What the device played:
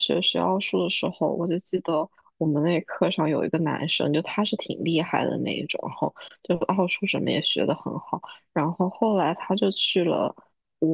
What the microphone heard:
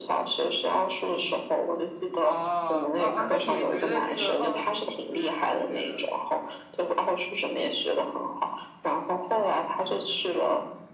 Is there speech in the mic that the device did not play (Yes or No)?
Yes